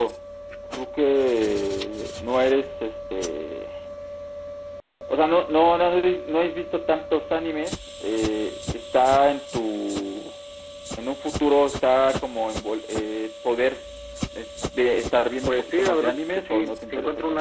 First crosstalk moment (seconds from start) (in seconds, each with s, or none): 15.5 s